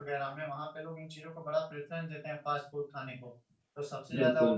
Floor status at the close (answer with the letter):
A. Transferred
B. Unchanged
B